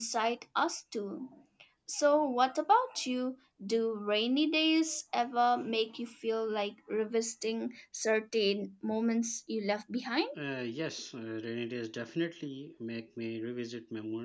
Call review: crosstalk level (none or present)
none